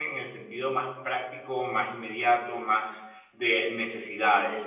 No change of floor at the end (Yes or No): No